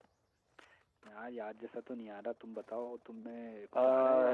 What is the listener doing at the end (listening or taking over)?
taking over